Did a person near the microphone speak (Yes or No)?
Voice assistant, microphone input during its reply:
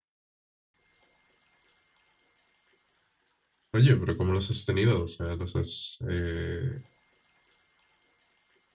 Yes